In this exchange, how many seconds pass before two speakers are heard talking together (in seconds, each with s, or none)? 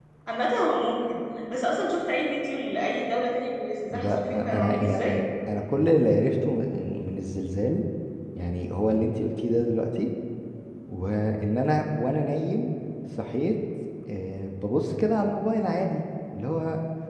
3.9 s